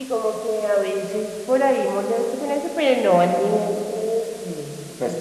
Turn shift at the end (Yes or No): Yes